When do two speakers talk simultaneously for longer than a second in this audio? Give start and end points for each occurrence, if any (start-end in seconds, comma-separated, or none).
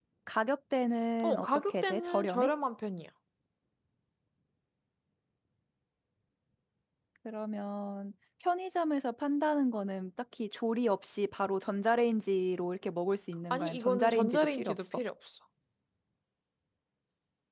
1.2-2.5, 13.5-15.0